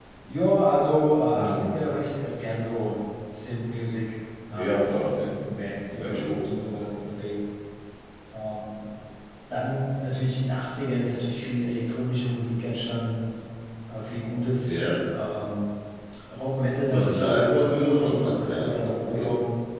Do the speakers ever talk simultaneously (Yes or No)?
Yes